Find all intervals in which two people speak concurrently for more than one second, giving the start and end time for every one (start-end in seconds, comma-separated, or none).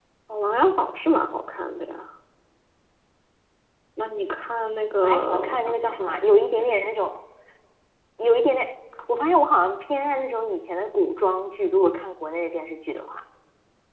5.0-6.8